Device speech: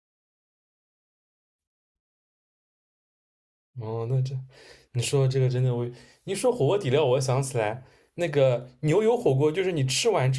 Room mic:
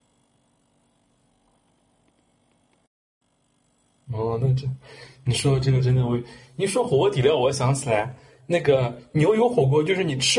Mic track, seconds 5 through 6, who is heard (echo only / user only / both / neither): echo only